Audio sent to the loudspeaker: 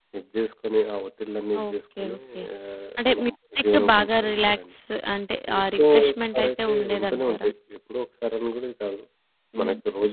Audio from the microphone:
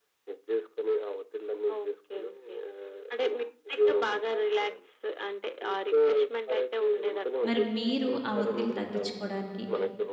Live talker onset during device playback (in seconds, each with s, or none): 7.5 s